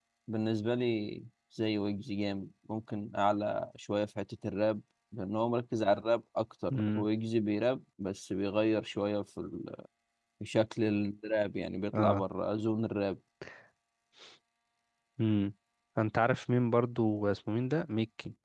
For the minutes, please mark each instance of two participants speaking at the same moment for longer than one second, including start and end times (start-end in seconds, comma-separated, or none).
none